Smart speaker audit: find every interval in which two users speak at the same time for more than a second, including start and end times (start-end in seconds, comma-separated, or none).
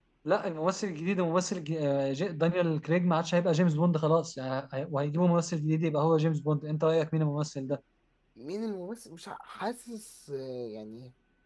none